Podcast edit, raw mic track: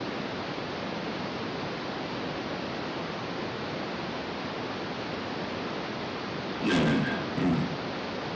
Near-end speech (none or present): present